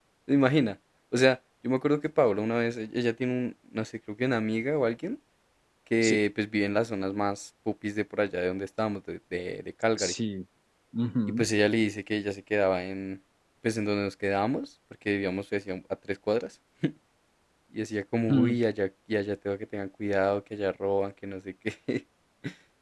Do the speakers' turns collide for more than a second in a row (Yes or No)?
No